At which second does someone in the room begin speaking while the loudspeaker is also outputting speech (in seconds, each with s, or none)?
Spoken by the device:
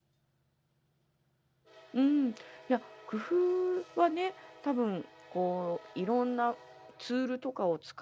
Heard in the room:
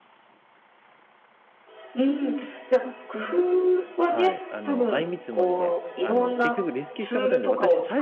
4.0 s